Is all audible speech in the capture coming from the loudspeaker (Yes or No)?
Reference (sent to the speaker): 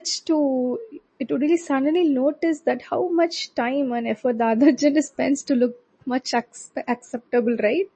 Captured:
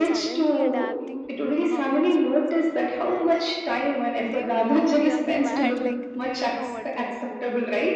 No